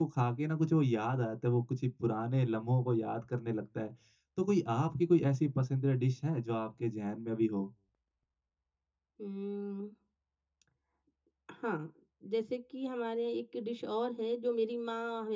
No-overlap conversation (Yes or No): Yes